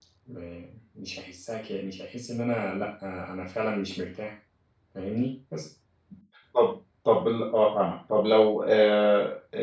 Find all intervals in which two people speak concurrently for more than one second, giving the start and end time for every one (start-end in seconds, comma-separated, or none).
none